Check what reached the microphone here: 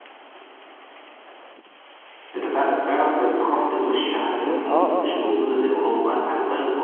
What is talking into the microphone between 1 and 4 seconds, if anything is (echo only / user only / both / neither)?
echo only